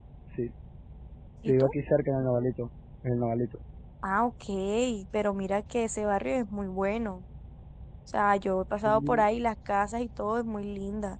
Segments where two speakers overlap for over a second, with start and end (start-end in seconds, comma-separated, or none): none